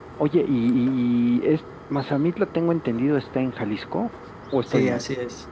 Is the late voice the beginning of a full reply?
Yes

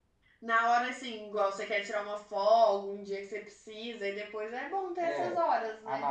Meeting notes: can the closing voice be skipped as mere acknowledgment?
No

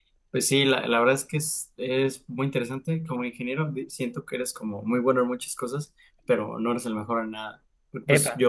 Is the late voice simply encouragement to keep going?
Yes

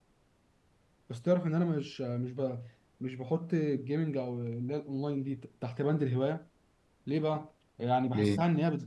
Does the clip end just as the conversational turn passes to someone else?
No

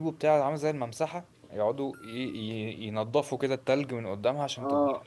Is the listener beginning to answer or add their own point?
Yes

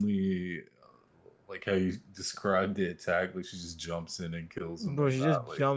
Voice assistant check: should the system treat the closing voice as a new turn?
Yes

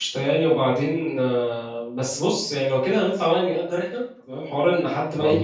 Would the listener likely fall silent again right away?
Yes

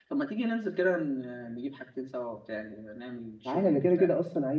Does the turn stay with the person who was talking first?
No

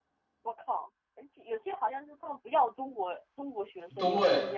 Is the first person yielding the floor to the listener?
Yes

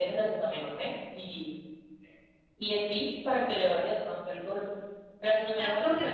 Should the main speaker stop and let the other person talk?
Yes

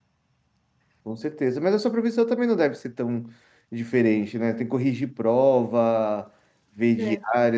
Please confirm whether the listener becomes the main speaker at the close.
No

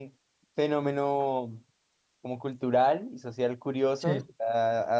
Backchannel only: Yes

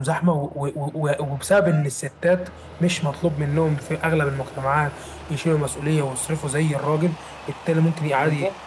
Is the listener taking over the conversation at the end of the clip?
No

